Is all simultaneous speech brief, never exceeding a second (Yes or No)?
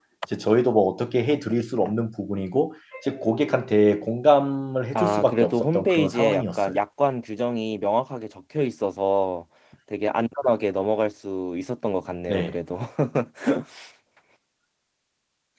No